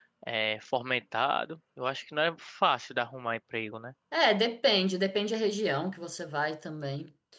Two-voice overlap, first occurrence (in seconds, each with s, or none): none